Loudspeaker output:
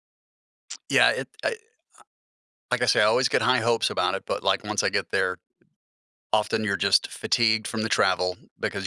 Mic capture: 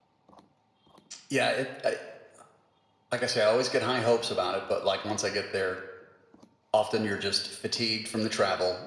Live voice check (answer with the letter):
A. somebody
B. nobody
B